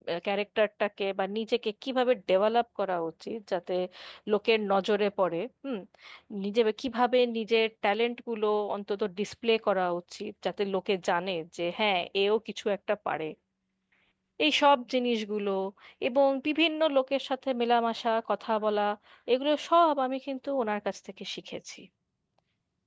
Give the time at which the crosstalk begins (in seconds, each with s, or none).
none